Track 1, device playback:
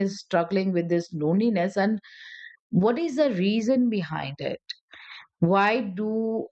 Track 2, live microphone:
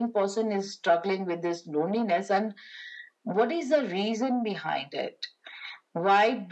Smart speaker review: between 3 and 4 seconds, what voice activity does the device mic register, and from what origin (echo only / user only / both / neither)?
echo only